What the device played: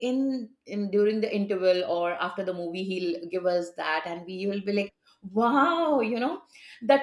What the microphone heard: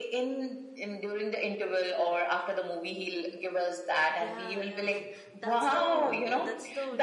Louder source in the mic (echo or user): echo